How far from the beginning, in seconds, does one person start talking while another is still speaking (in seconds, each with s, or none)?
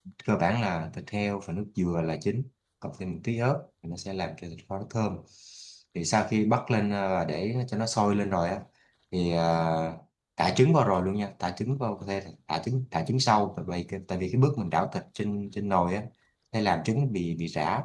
none